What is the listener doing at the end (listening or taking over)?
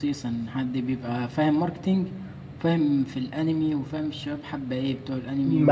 taking over